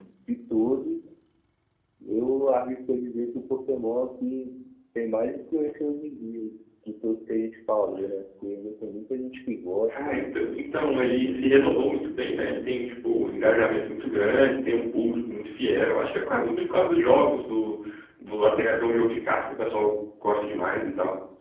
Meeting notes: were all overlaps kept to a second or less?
No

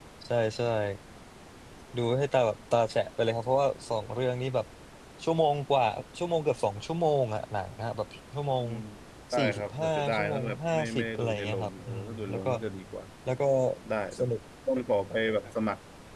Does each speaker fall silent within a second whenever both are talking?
No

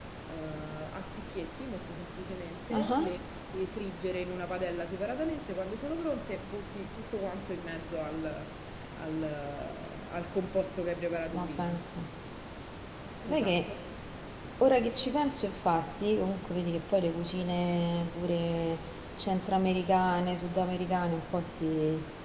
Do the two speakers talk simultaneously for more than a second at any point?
No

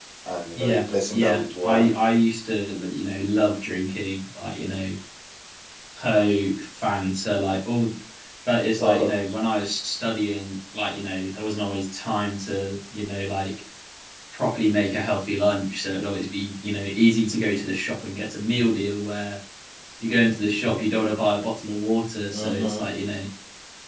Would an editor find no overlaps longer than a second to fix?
No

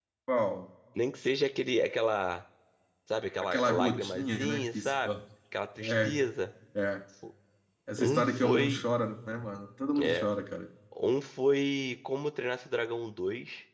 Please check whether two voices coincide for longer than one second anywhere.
Yes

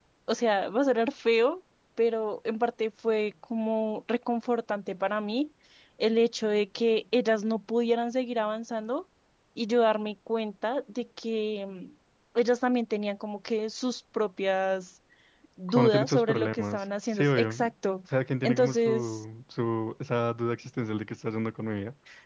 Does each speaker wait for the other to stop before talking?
No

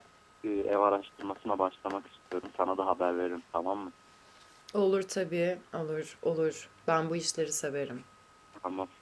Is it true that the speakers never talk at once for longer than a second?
Yes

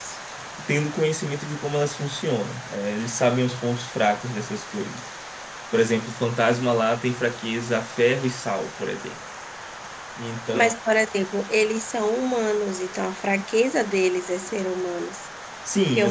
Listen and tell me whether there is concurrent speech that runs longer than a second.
No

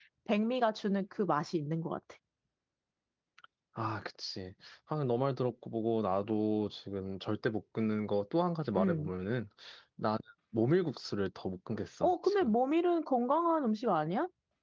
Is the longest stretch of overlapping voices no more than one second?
Yes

